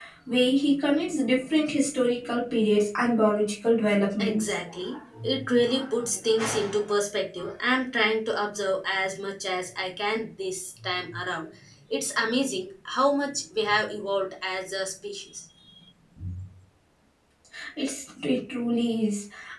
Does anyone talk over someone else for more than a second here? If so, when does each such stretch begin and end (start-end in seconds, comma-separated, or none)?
none